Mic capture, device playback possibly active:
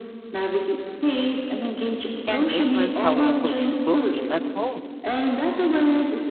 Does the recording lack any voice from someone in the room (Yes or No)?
No